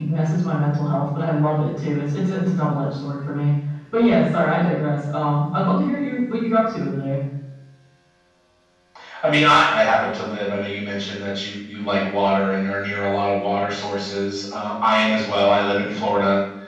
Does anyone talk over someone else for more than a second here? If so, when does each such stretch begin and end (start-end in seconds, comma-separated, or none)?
none